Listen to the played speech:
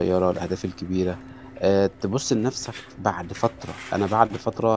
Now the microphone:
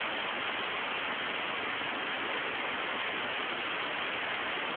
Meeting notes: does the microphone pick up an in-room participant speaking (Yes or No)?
No